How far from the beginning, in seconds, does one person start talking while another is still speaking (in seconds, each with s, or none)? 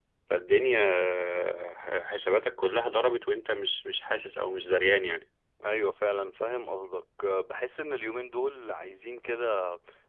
none